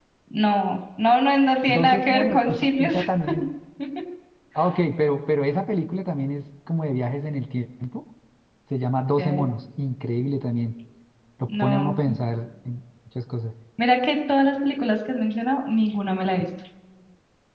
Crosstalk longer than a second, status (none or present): present